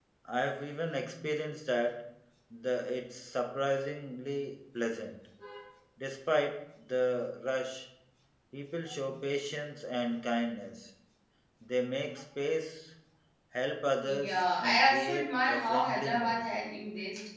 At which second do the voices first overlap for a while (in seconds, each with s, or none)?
14.0 s